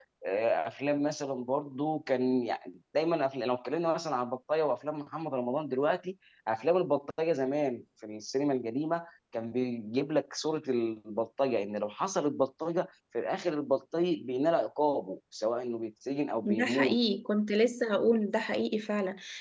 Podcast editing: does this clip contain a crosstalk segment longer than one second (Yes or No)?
No